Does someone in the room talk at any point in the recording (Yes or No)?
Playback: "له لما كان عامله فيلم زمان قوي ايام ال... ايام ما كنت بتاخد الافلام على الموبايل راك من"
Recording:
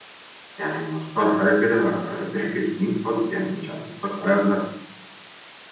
Yes